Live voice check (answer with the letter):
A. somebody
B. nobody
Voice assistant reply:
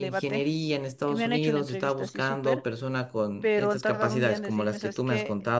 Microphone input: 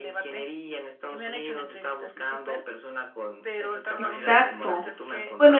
A